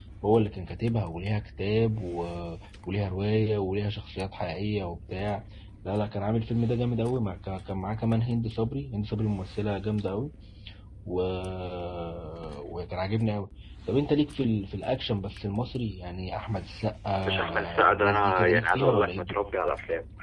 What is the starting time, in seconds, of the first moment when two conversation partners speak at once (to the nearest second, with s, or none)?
17 s